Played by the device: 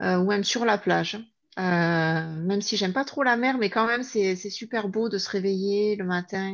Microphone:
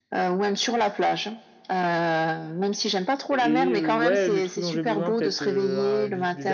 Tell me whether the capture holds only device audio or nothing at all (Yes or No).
No